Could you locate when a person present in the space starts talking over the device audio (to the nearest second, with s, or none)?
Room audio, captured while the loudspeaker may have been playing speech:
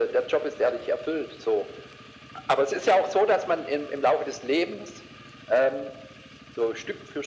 none